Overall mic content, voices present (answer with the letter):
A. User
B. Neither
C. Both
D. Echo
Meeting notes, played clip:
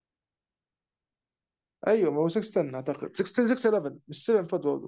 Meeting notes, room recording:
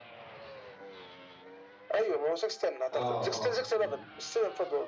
C